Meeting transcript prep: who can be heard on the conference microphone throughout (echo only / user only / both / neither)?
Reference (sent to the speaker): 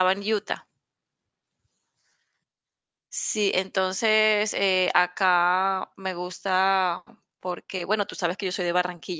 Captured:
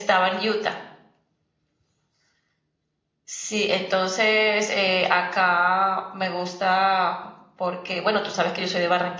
echo only